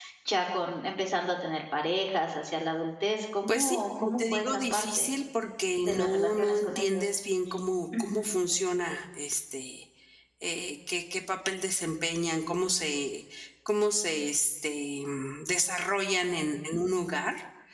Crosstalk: present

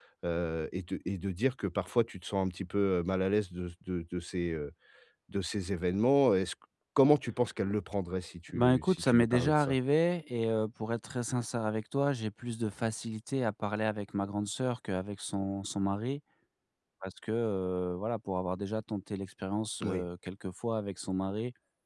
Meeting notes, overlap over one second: present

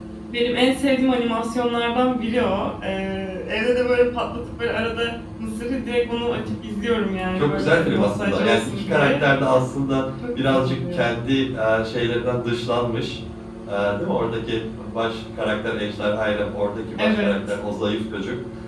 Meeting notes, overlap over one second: present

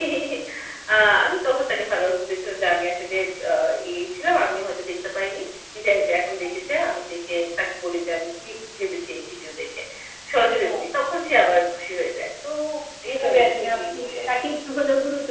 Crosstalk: present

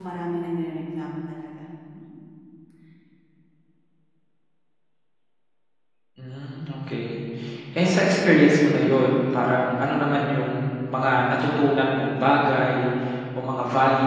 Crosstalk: none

